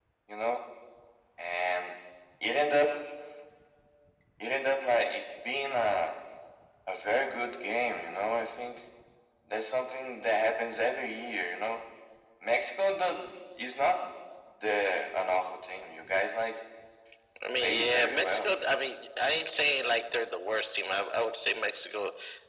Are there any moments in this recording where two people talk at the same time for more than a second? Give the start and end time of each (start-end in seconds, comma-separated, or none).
17.6-18.8